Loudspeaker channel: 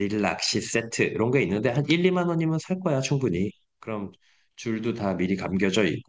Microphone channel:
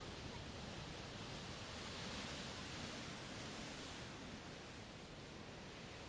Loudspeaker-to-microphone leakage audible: No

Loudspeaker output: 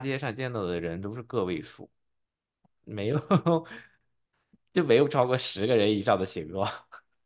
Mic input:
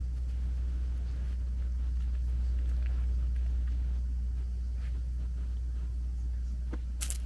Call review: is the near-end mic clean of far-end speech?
Yes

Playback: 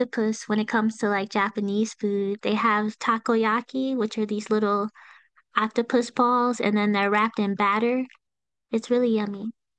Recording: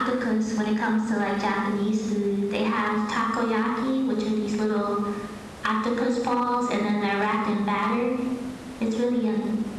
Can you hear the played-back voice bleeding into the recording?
Yes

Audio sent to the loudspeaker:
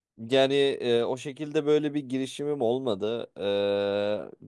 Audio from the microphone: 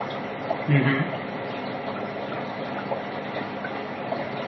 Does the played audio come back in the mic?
No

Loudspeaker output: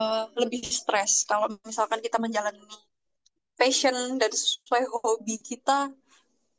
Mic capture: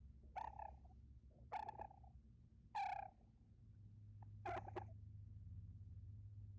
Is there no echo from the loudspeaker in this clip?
Yes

